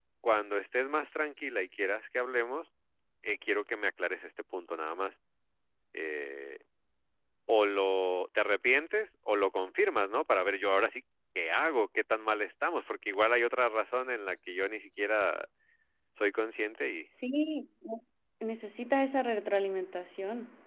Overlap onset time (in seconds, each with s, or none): none